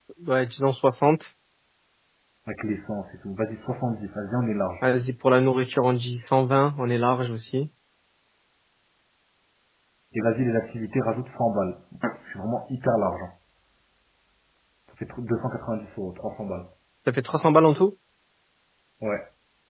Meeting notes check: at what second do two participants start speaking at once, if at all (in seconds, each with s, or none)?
none